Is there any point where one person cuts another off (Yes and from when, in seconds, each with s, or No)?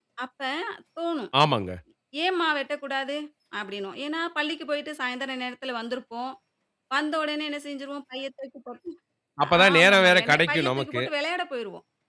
Yes, from 9.6 s